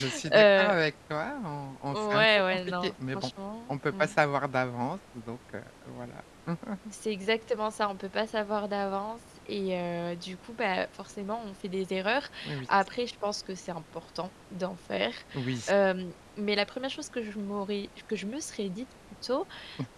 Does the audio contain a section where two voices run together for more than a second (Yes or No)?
Yes